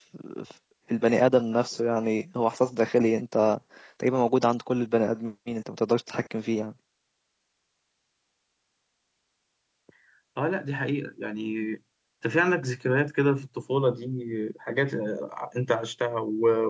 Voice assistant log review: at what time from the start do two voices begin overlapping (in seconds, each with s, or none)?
none